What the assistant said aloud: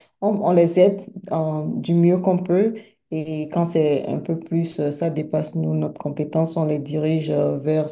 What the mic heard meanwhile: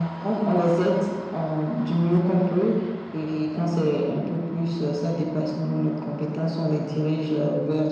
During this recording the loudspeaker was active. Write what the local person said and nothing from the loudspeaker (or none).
none